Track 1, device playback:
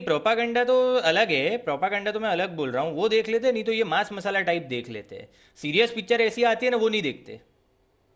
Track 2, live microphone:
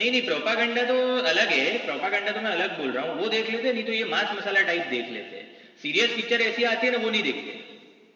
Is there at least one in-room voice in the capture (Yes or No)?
No